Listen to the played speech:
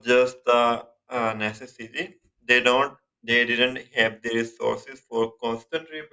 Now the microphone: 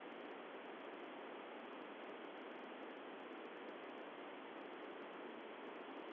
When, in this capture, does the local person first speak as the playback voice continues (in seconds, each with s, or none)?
none